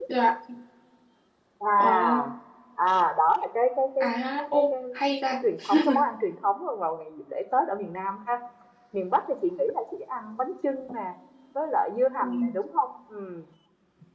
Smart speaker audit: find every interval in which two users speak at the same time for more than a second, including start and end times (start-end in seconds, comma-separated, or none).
none